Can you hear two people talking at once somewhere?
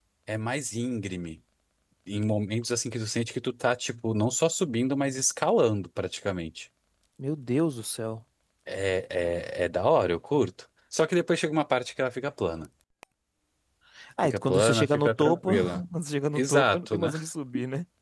Yes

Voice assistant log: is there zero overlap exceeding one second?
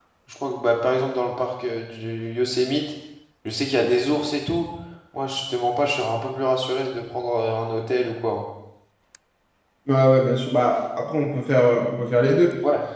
Yes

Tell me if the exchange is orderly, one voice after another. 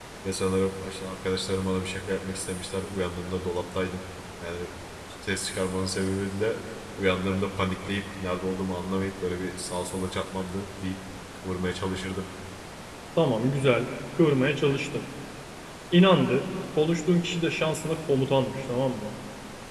Yes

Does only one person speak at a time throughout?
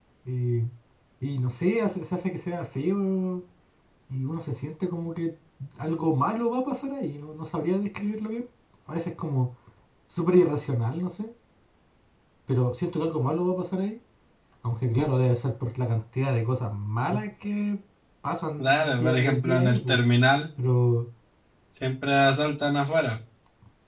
No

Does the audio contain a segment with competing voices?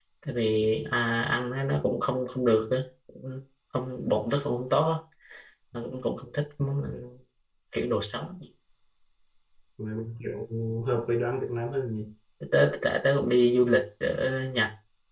No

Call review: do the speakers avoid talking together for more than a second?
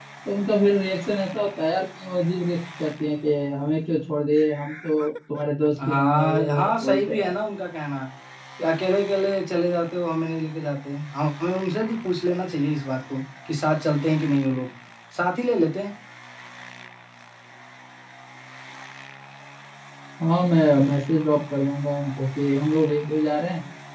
No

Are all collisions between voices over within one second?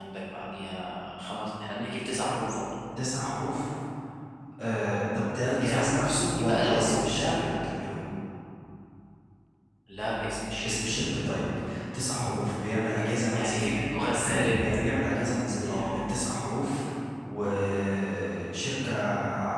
No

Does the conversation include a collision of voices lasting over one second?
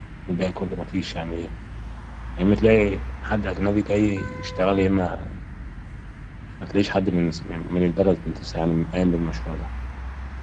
No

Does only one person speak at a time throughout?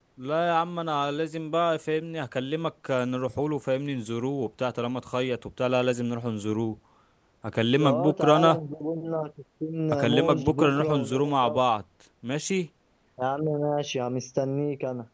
No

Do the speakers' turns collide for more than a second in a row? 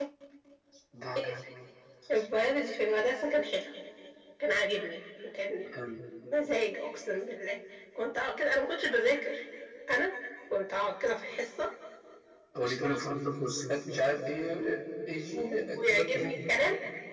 Yes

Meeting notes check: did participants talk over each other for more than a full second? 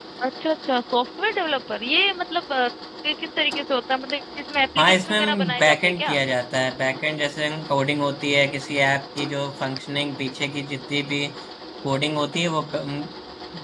Yes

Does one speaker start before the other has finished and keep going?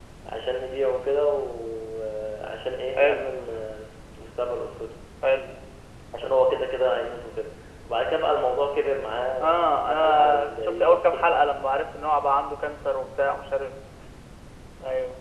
Yes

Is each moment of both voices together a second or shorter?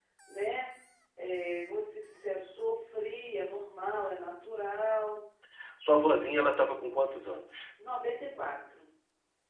Yes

